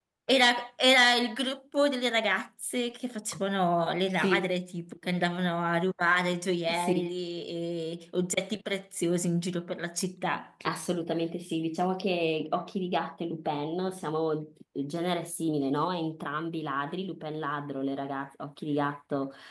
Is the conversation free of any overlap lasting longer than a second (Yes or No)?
Yes